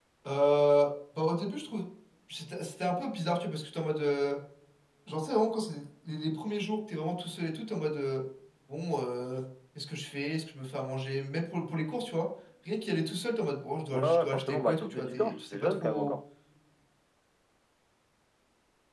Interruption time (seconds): 14 s

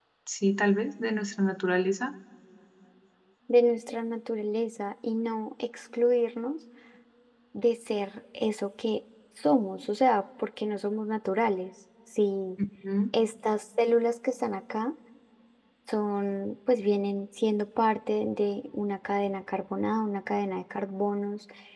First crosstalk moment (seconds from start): none

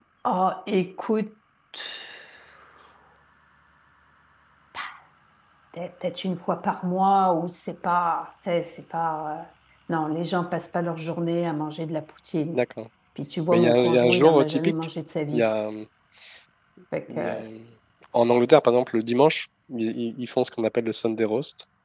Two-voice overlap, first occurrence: 14 s

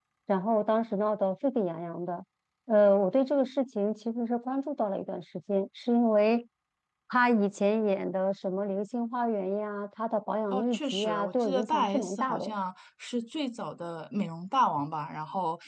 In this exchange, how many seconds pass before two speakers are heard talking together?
11 s

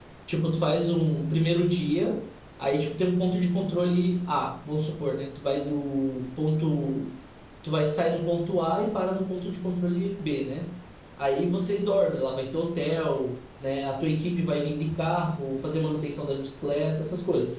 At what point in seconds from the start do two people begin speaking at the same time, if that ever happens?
none

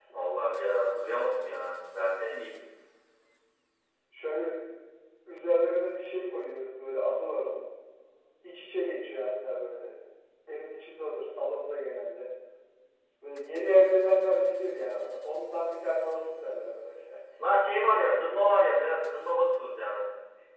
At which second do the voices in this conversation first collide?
none

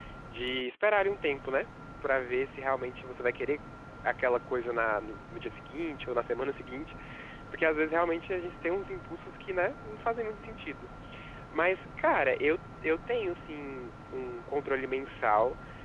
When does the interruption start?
none

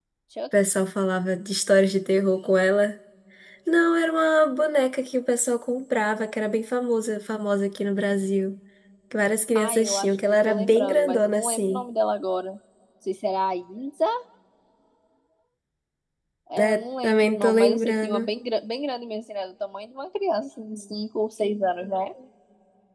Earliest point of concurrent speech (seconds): 10 s

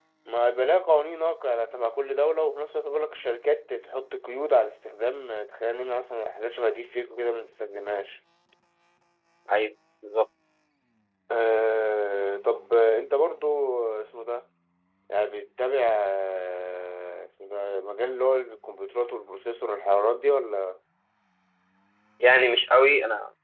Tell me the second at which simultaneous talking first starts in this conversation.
none

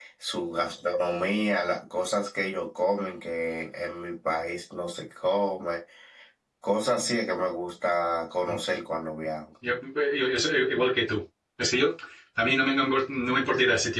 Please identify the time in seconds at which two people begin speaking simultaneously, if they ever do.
none

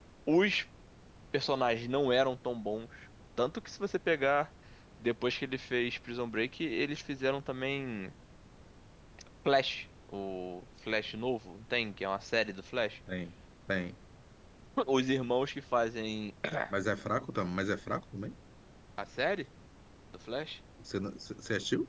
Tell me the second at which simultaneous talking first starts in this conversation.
none

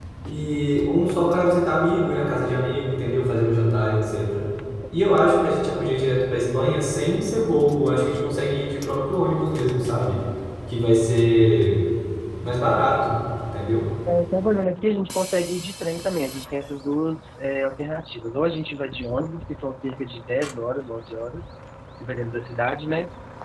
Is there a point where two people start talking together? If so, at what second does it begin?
none

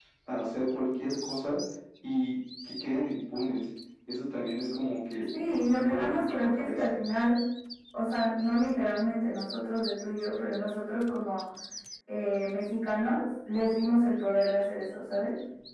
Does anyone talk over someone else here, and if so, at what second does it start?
5 s

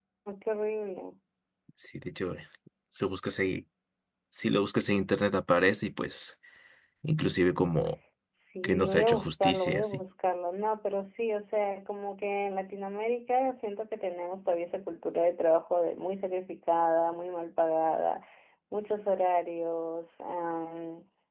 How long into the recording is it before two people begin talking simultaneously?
9 s

